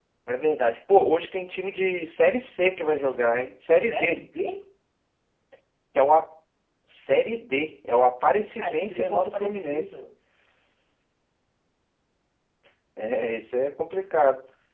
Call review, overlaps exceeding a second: present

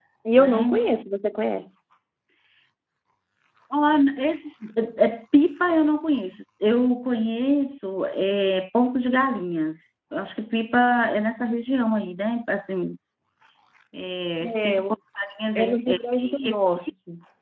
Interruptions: present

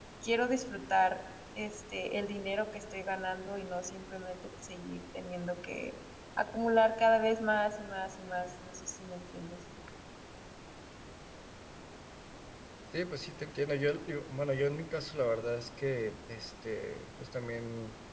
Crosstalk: none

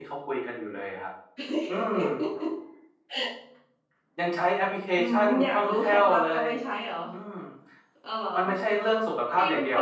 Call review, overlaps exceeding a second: present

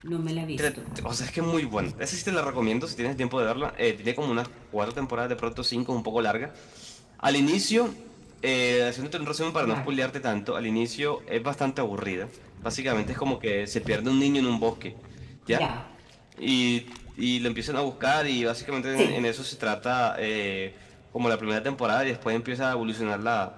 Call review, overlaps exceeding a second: none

